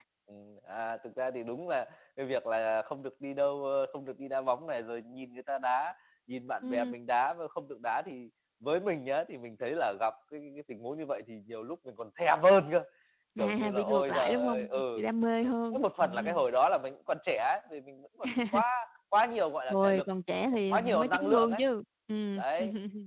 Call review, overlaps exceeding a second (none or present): present